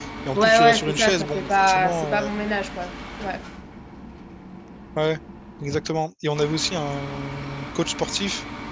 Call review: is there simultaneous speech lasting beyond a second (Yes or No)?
Yes